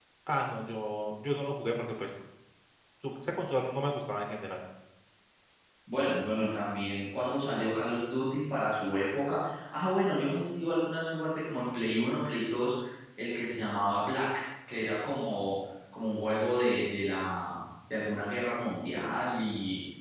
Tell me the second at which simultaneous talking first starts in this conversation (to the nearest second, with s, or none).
none